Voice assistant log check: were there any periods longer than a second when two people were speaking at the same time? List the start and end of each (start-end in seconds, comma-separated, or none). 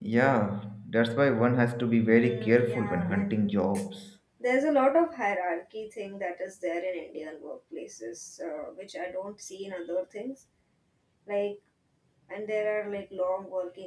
2.1-3.5